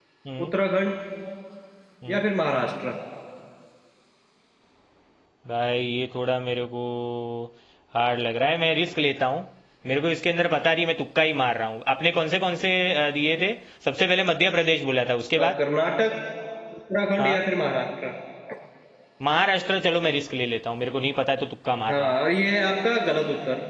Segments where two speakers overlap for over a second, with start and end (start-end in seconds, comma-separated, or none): none